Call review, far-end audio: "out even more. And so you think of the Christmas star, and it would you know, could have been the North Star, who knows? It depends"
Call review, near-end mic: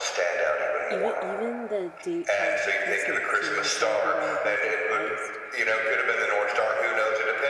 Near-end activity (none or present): present